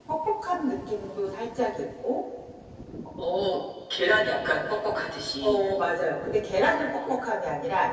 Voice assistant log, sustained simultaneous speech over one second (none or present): none